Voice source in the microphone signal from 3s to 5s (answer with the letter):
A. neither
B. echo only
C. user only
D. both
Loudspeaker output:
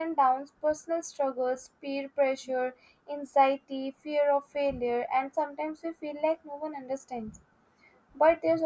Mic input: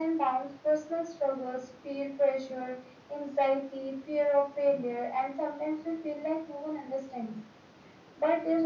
B